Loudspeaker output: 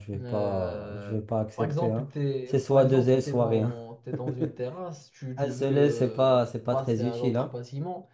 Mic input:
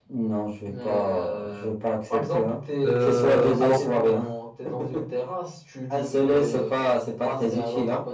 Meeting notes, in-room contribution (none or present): present